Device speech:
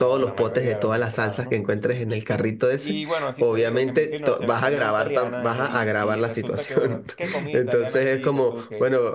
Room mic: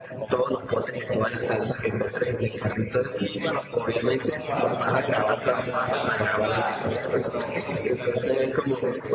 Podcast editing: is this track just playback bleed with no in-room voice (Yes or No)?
No